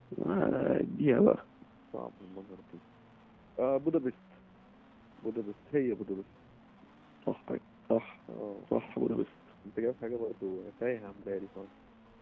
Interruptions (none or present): none